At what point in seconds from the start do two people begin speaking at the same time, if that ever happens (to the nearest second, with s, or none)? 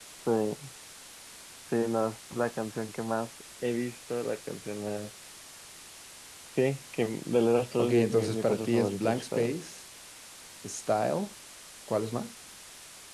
8 s